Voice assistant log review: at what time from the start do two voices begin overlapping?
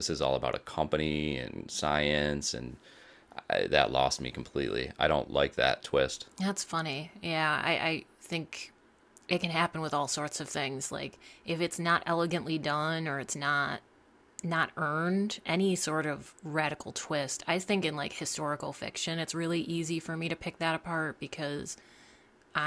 none

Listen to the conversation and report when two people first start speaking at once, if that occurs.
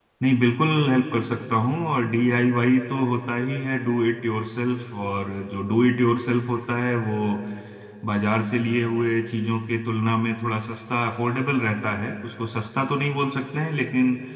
none

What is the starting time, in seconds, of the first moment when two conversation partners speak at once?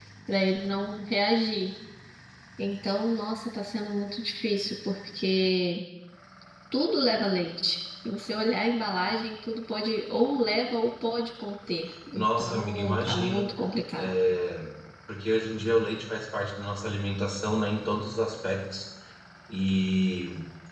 12.1 s

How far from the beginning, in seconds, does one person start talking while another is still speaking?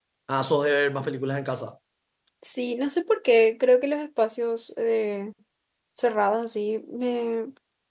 none

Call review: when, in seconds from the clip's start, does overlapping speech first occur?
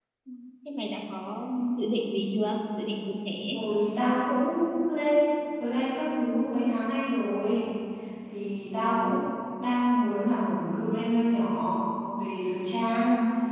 none

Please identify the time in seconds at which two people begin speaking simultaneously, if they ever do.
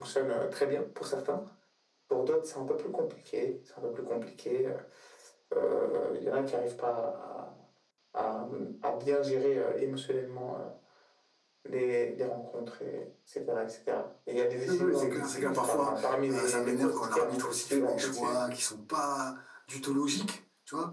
14.7 s

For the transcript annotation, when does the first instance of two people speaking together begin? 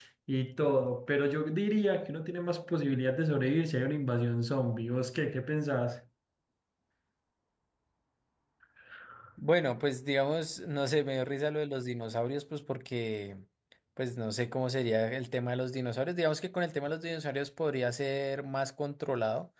none

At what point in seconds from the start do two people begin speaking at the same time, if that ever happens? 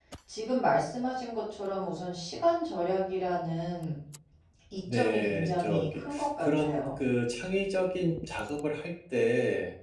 4.9 s

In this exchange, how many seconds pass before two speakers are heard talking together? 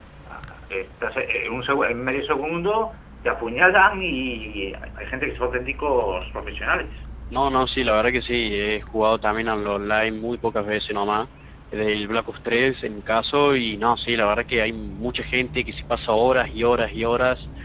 none

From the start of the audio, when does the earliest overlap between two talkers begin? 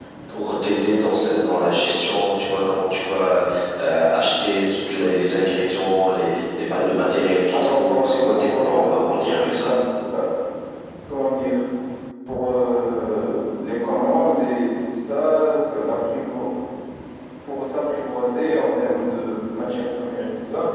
7.5 s

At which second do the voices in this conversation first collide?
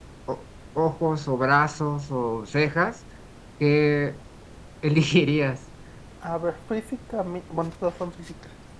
none

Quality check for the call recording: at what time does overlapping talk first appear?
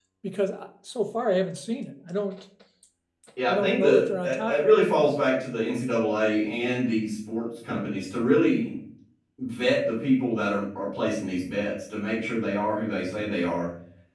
3.5 s

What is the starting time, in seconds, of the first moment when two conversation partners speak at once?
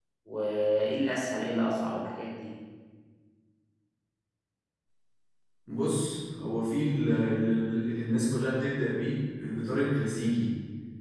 none

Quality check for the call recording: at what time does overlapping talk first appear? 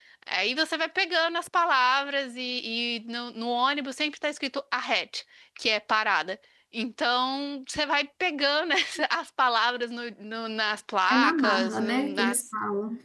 11.1 s

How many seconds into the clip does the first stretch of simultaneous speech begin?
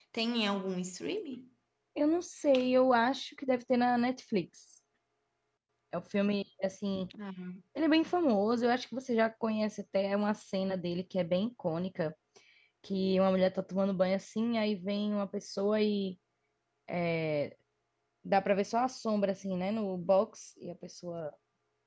none

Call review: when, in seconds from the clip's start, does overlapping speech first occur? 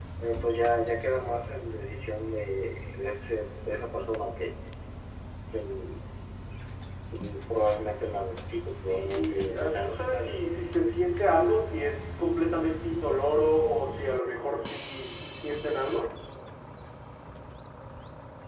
8.7 s

